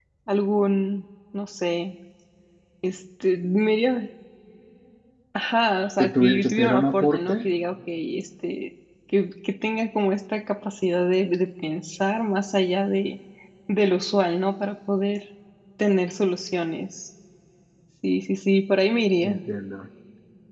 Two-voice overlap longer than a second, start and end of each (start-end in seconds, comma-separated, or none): 6.0-7.4